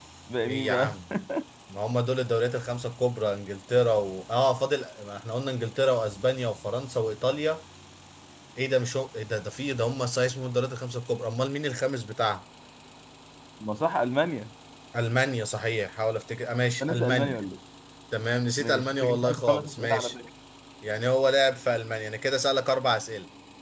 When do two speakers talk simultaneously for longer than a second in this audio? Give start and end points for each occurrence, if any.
18.6-20.1

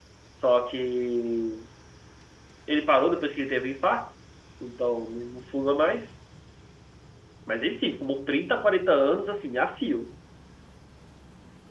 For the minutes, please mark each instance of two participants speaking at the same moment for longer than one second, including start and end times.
none

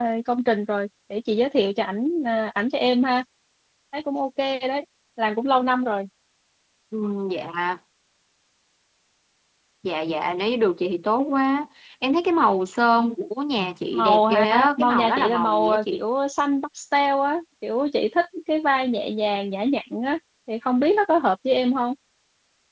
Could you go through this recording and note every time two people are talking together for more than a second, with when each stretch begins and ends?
13.9-16.0

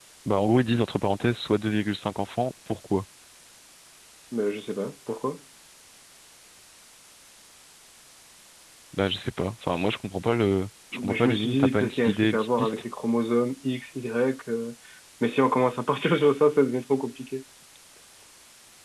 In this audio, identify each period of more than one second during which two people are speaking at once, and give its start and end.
10.9-12.8

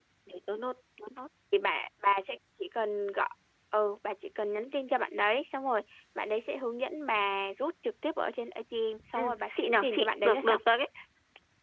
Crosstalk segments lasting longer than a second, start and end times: 9.2-10.6

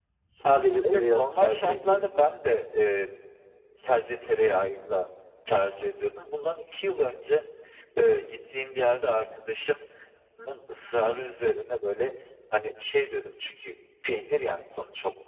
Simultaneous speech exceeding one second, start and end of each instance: 0.8-2.3

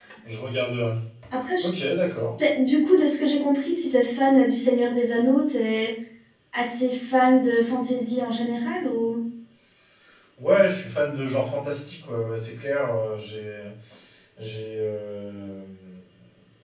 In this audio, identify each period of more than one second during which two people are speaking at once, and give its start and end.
none

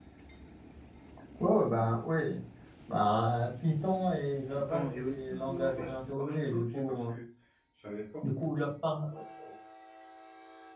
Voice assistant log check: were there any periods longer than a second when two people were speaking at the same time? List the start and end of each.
4.5-7.1

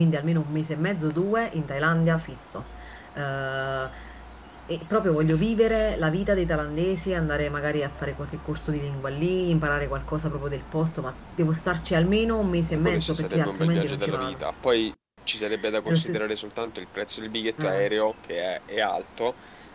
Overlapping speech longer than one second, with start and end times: 12.7-14.4

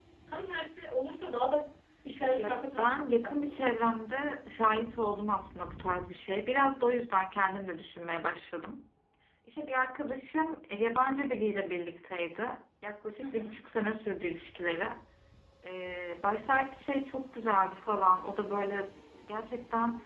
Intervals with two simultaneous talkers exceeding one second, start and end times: 2.4-3.6

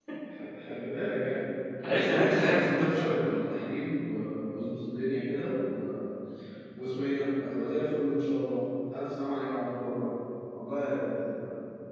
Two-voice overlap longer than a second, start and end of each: 1.9-3.4

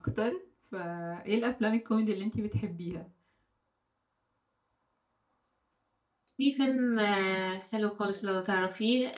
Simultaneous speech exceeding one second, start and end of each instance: none

